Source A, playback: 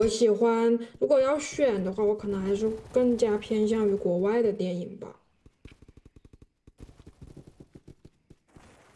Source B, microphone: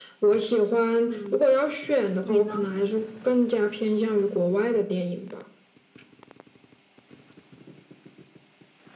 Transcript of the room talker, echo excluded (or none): 嗯，你呢？